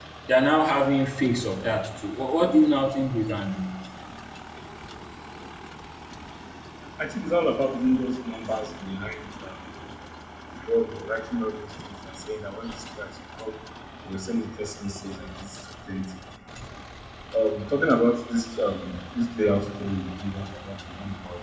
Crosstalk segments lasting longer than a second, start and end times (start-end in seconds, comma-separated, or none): none